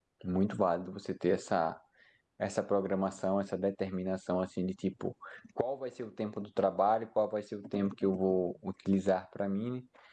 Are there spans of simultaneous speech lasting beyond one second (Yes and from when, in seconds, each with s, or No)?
No